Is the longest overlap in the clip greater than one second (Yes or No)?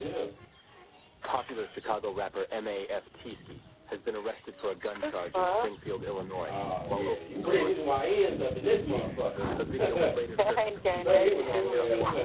Yes